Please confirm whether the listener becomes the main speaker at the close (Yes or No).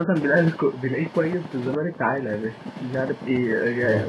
No